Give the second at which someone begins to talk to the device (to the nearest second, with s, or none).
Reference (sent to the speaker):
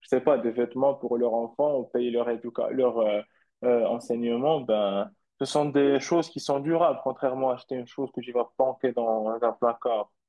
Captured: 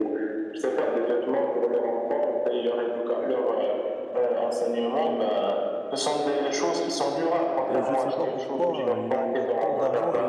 8 s